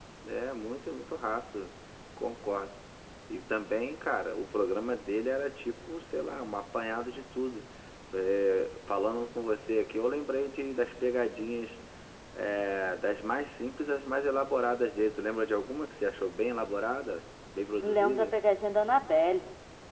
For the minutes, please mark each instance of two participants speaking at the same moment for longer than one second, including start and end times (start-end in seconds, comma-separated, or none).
none